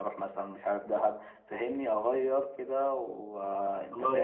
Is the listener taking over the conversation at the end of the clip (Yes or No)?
Yes